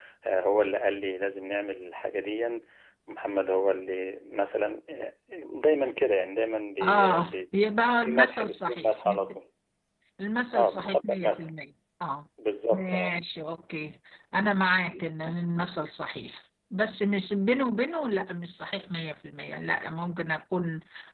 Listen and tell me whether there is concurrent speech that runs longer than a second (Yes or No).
Yes